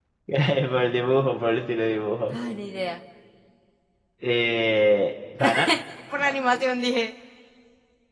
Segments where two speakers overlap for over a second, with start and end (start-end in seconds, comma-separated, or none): none